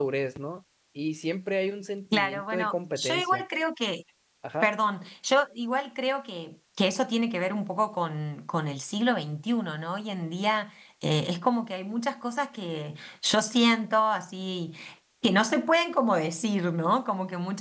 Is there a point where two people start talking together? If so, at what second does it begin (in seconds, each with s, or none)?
2.1 s